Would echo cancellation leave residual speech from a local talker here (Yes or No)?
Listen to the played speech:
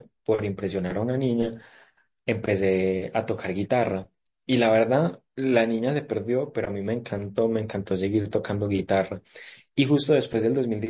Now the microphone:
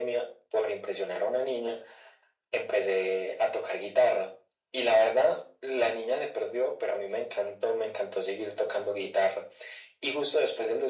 No